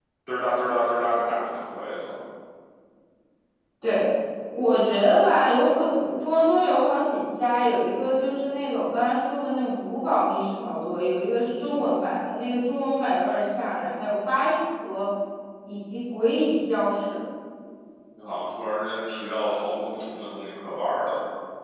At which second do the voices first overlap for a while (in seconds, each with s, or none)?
none